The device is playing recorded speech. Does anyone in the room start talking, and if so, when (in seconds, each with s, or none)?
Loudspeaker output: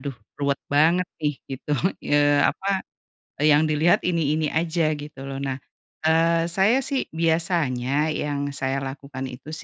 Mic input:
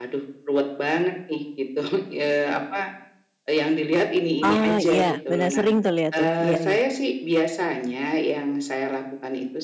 4.4 s